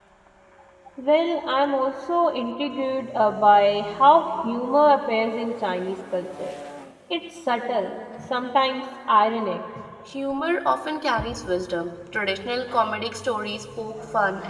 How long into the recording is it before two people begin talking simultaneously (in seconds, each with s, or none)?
none